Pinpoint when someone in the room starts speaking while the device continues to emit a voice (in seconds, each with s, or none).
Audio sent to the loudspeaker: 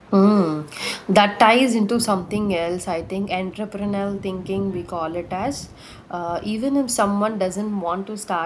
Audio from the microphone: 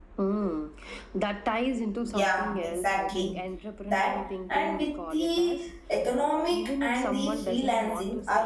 2.0 s